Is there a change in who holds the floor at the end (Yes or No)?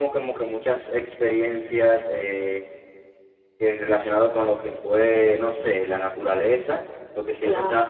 No